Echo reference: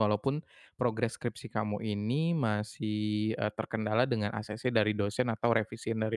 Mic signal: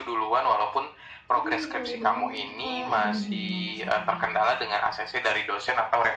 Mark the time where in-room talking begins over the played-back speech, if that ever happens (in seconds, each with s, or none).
1.4 s